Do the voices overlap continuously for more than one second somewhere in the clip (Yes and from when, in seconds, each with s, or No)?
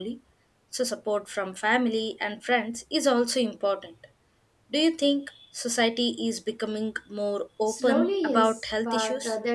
Yes, from 7.7 s